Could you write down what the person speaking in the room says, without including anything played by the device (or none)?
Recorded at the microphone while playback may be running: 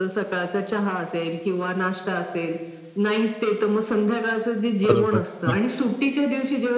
बरोबर. हं.